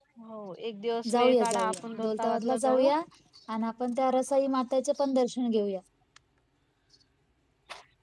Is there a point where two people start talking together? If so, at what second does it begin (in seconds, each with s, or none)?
1.1 s